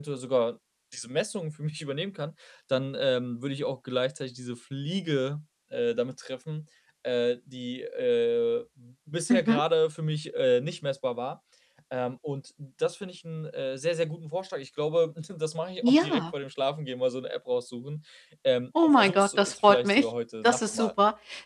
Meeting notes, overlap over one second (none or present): present